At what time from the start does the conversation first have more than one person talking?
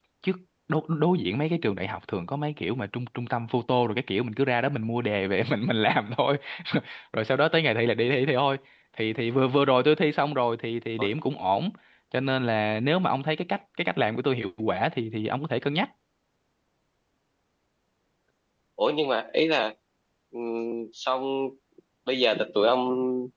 none

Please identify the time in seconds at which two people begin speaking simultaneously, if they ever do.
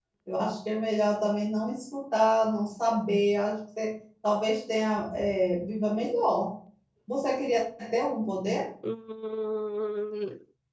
none

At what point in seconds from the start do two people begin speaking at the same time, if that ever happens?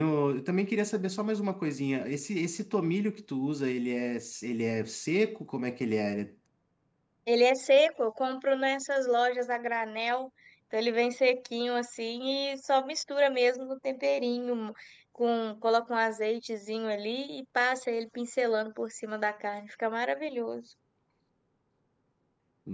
none

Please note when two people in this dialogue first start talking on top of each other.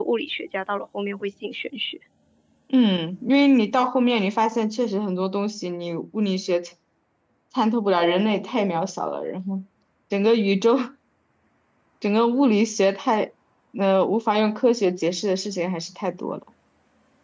none

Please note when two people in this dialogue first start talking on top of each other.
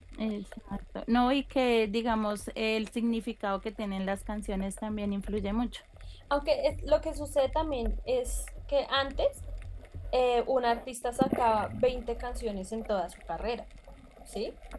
none

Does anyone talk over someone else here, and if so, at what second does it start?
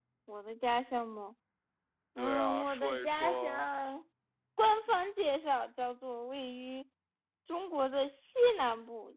2 s

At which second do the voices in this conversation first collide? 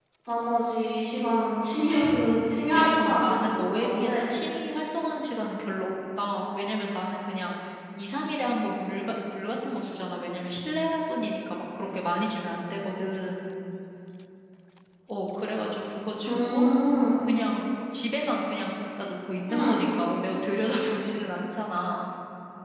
3 s

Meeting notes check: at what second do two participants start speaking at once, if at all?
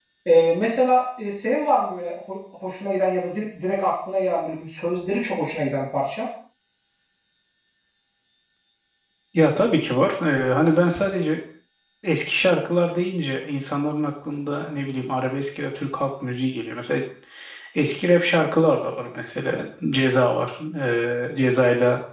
none

